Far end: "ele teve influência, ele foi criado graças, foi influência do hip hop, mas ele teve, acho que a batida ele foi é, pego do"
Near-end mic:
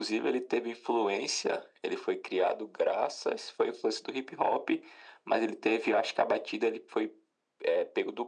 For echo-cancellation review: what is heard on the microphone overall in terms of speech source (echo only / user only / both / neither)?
echo only